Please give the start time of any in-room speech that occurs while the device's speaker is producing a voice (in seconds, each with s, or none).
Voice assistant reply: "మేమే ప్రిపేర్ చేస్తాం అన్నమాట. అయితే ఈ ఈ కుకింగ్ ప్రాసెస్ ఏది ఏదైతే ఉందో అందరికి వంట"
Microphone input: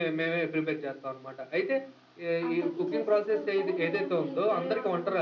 2.5 s